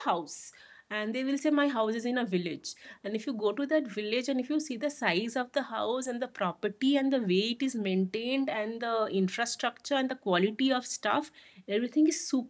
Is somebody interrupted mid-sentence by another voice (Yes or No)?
No